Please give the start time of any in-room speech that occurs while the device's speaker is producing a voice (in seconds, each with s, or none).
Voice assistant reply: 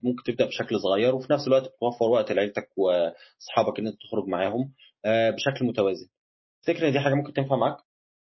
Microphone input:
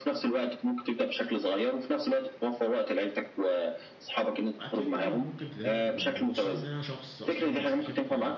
4.6 s